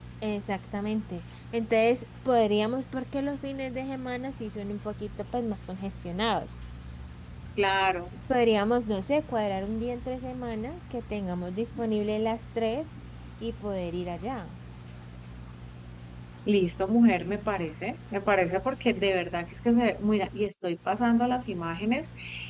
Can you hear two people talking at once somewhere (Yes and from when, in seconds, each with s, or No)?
No